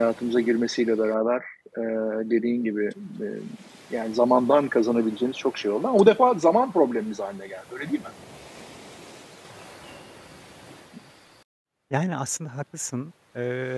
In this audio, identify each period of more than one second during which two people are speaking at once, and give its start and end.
none

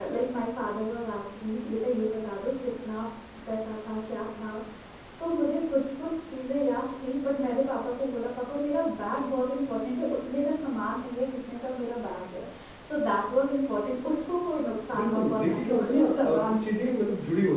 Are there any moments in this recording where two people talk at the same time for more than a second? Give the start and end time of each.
14.9-16.9

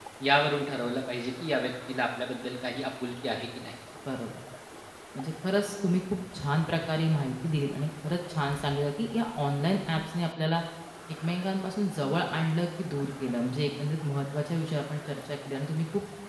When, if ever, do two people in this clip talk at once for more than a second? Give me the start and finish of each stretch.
none

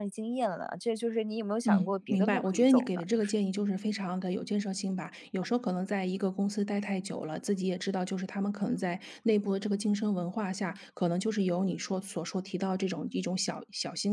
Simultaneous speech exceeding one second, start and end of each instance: 1.7-3.4

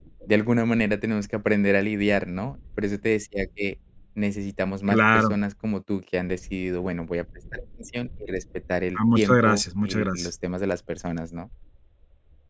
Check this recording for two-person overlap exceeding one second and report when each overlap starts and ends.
9.0-10.3

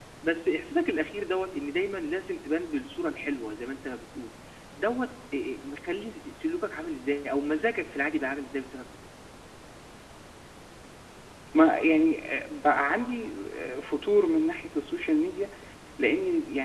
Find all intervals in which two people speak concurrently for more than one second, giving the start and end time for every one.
none

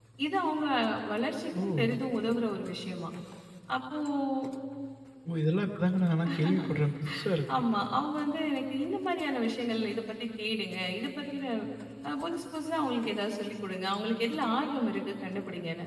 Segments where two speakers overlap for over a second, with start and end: none

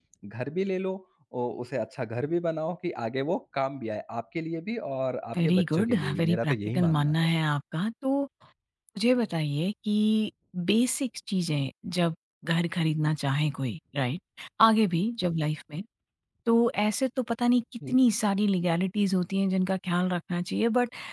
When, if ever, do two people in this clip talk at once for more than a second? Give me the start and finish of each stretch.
5.4-7.1

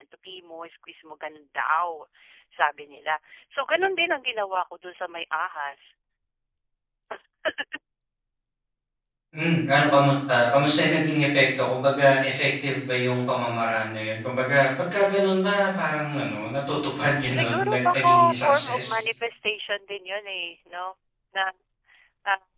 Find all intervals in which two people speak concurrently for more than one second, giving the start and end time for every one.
17.3-18.8

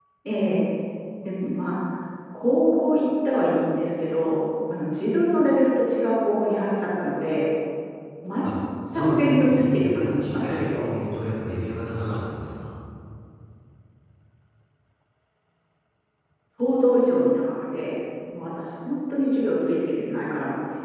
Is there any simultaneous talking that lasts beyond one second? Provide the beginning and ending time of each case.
9.0-10.9

